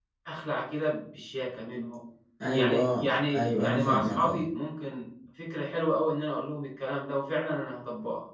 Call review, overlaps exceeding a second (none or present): present